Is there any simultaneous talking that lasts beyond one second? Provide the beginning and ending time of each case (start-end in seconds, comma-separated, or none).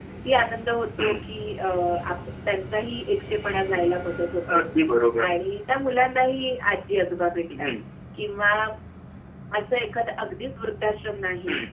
none